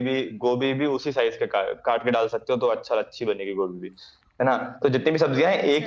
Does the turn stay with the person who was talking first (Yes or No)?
Yes